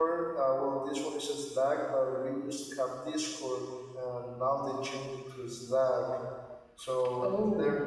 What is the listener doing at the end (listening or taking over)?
listening